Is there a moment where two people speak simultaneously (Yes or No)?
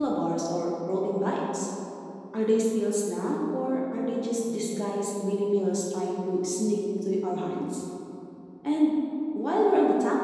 No